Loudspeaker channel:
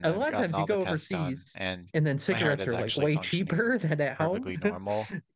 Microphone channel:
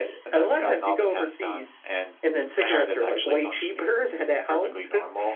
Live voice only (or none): none